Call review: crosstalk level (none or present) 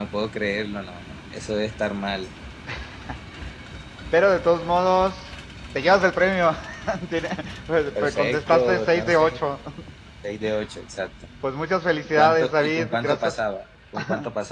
present